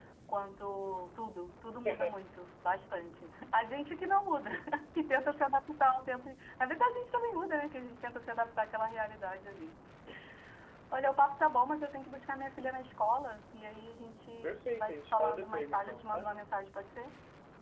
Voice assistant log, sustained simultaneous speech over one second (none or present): present